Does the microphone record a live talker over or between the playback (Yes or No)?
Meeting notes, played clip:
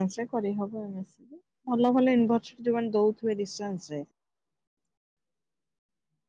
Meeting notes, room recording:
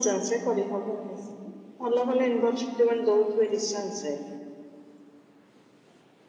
No